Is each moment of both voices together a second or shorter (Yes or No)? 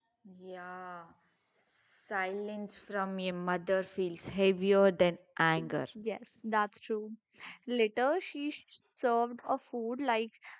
Yes